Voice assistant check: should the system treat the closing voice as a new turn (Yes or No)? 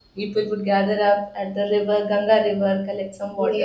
No